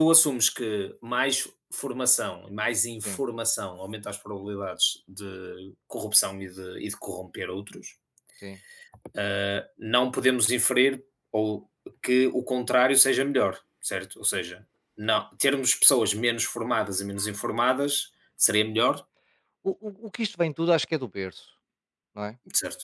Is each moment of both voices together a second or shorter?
Yes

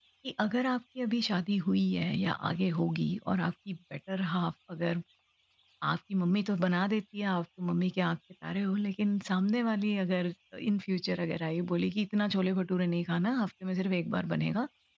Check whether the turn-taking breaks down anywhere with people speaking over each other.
No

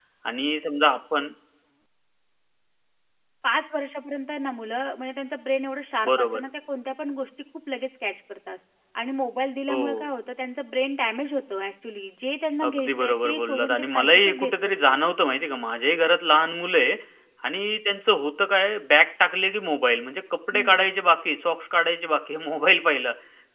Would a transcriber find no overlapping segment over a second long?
No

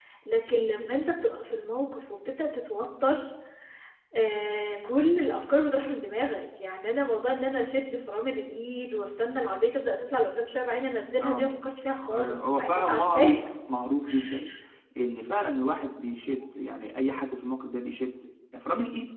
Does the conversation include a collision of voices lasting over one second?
Yes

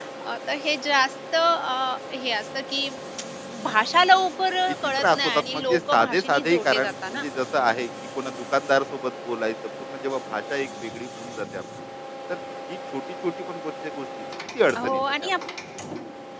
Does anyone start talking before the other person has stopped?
Yes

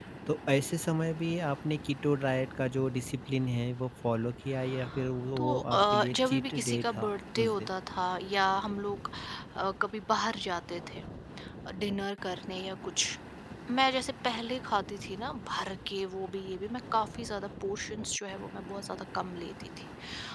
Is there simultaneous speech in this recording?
Yes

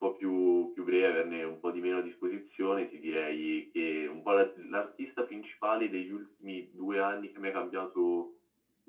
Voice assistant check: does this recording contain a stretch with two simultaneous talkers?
No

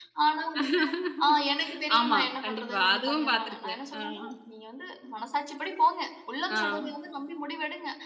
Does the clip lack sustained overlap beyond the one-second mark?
No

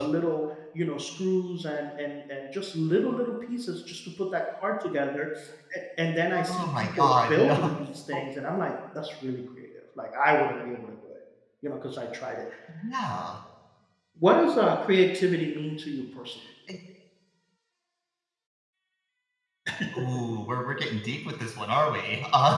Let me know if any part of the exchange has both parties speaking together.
Yes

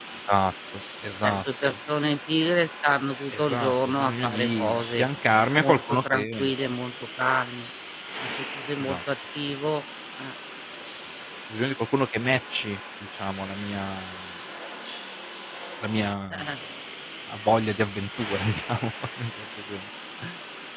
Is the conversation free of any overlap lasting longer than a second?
No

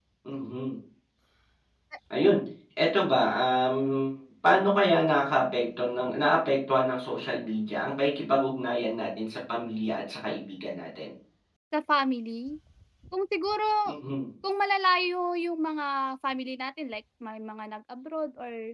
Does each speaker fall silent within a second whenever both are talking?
Yes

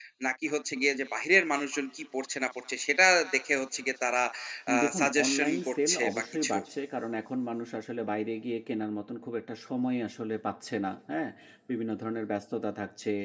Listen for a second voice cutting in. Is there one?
Yes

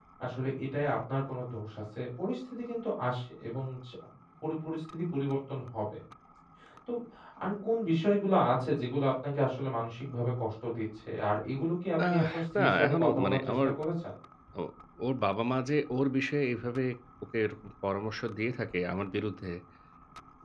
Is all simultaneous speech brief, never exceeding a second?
No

